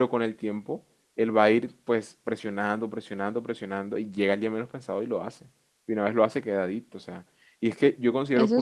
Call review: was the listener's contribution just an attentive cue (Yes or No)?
Yes